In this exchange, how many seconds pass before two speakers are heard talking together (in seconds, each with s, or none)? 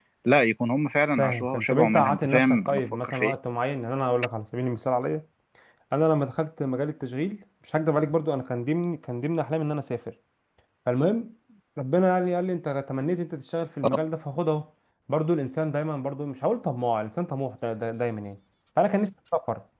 1.2 s